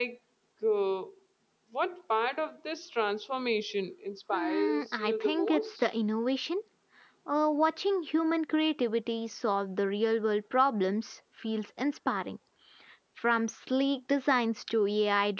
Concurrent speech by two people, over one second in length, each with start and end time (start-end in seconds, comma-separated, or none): 4.3-5.9